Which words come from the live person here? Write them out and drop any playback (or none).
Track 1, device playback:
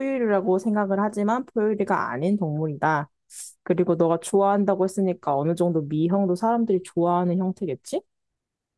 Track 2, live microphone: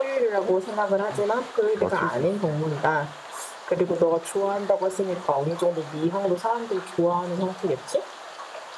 음. 맞출 수 있어.